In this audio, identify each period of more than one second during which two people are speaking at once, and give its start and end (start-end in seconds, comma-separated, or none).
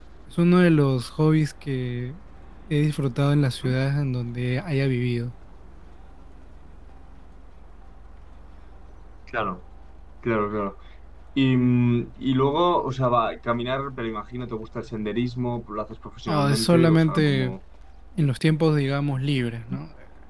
16.3-17.5